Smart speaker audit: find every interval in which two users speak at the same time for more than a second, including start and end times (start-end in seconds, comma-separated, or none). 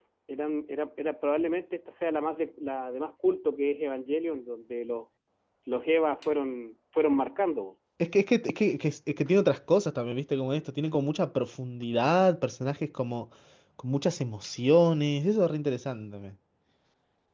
none